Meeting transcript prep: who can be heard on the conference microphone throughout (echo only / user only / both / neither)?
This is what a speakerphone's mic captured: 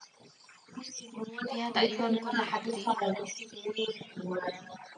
both